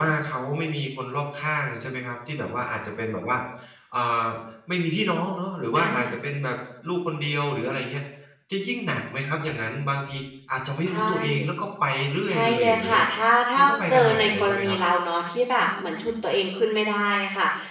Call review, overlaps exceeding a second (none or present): present